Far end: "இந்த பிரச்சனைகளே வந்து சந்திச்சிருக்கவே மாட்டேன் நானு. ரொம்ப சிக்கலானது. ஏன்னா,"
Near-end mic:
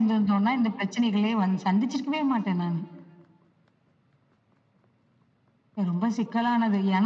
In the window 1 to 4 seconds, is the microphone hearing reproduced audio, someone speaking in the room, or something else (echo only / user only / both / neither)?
echo only